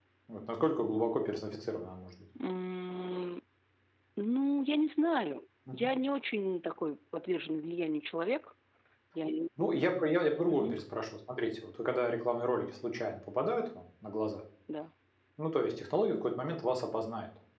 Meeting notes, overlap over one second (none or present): none